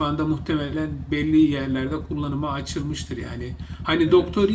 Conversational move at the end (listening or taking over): listening